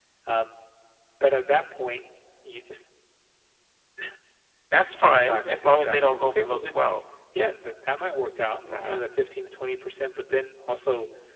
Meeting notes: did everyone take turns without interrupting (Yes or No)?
No